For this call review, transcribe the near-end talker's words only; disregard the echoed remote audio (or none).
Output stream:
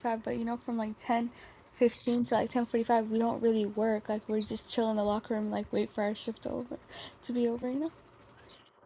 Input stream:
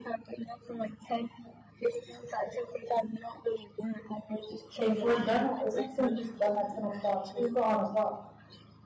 If we're done at, it's not saying we're done at 10 o'clock. We're still on the clock.